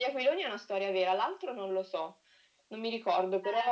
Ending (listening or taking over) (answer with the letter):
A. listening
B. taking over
B